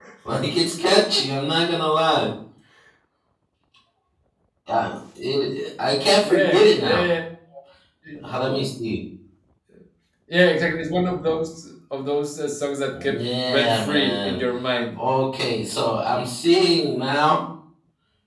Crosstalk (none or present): present